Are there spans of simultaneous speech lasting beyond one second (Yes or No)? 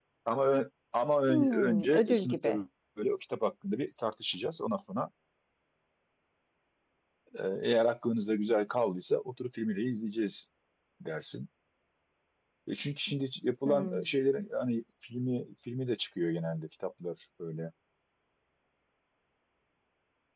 Yes